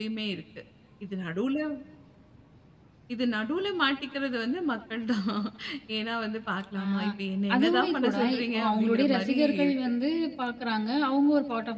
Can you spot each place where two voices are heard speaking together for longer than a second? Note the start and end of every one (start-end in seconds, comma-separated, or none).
7.5-9.7